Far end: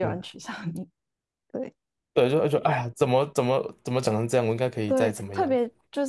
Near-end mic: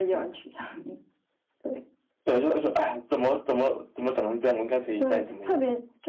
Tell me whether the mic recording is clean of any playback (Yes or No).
No